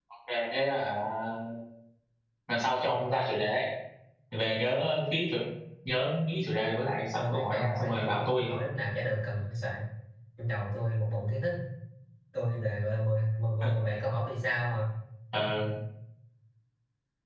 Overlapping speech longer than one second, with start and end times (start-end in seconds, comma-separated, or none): 7.2-8.5